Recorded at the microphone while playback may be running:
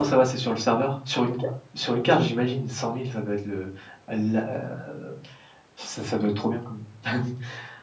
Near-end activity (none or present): present